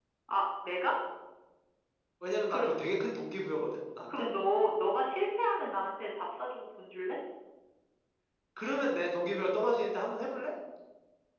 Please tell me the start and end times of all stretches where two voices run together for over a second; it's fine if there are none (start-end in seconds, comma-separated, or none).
none